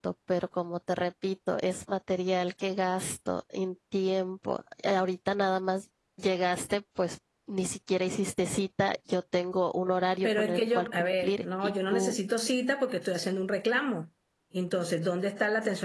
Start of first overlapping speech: 10.2 s

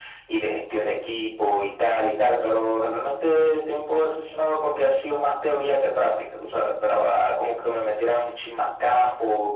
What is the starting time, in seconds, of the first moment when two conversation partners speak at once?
none

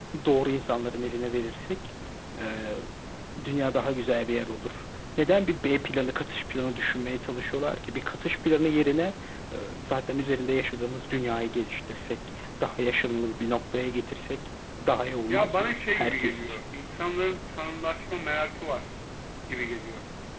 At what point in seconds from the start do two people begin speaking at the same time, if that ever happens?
15.3 s

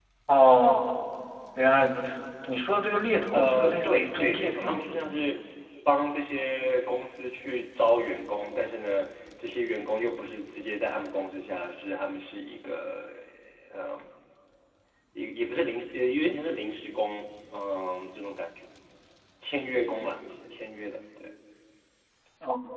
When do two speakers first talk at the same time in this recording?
3.3 s

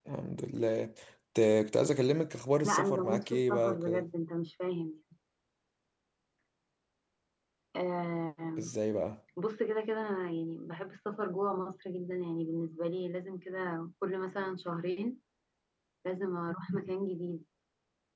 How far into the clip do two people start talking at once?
2.6 s

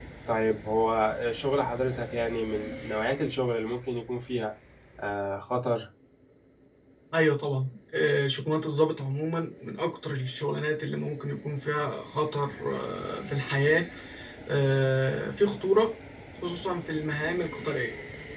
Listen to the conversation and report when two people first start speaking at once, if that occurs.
none

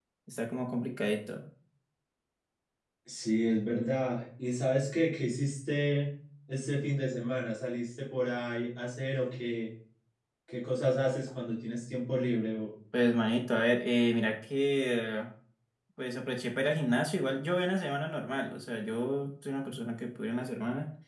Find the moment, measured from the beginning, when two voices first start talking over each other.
none

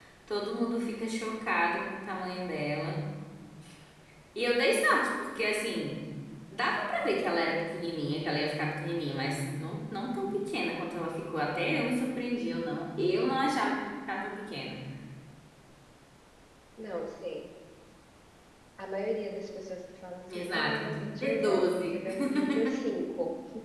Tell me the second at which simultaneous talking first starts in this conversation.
20.3 s

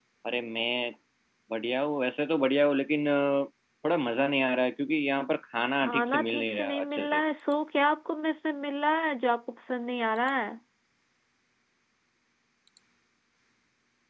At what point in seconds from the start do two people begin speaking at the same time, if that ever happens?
5.8 s

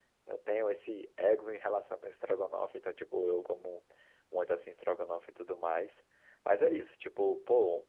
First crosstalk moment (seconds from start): none

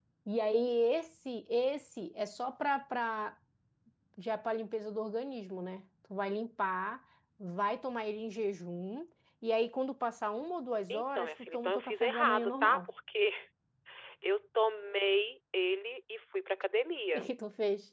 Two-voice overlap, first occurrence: 10.9 s

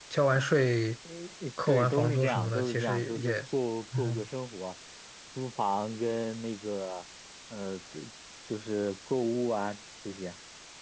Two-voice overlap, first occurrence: 1.7 s

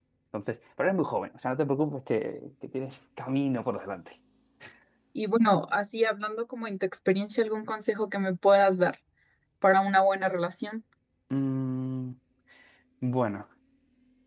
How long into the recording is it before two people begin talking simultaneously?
none

